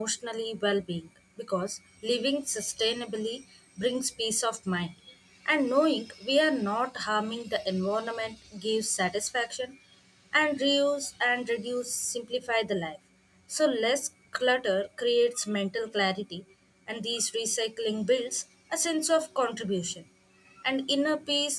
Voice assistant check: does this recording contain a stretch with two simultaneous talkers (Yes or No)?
No